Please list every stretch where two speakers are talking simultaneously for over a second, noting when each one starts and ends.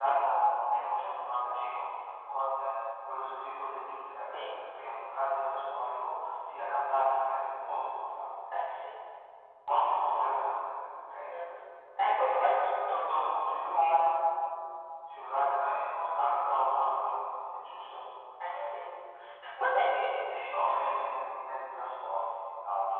none

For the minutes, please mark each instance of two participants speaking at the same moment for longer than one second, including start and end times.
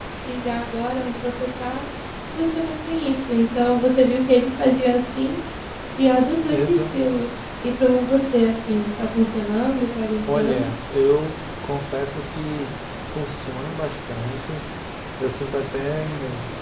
none

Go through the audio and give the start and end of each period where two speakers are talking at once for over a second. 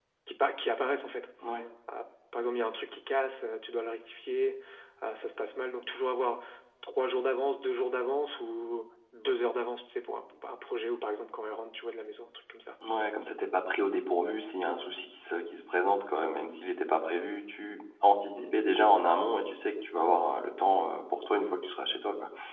none

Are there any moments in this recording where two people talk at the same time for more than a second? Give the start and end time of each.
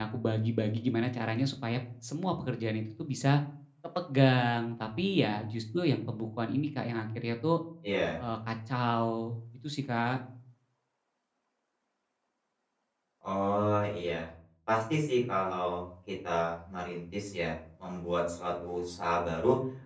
none

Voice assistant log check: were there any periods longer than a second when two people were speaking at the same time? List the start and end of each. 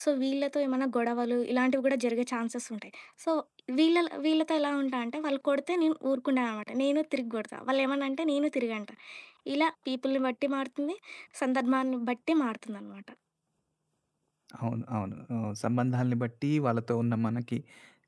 none

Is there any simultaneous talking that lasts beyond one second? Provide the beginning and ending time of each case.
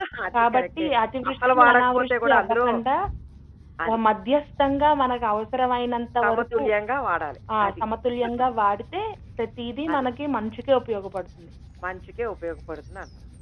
1.3-2.7

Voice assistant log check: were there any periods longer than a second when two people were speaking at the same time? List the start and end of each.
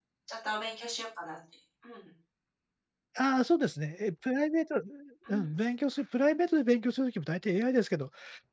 none

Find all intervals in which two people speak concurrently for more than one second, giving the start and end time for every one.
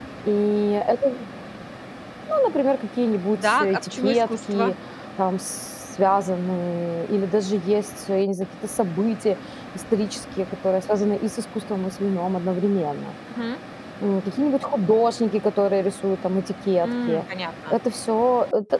3.3-4.7

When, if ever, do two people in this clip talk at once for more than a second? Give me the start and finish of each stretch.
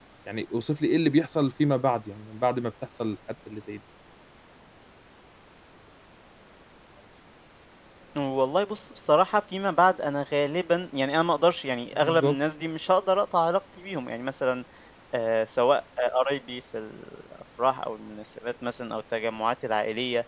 none

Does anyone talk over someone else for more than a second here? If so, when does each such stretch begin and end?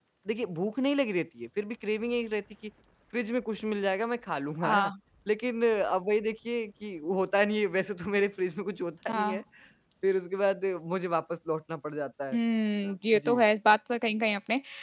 none

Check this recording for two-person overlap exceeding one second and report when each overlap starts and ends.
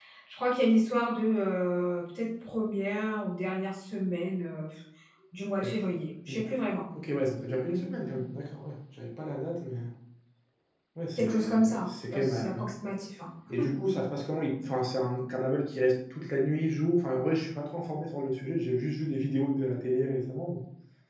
11.2-12.7

